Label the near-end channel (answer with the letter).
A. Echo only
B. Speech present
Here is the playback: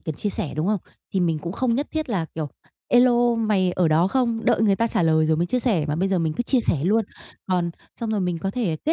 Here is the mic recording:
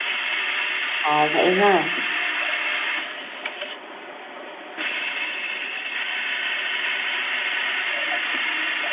B